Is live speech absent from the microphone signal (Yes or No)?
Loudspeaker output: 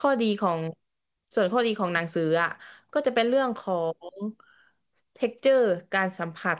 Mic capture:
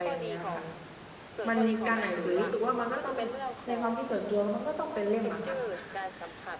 No